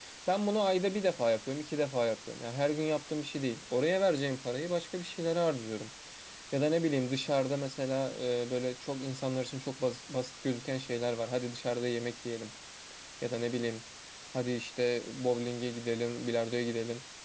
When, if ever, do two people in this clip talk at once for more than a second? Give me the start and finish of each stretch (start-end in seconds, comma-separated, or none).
none